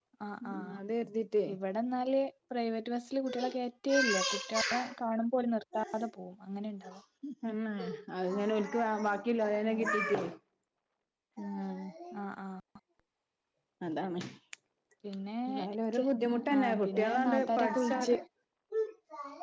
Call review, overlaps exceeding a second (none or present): present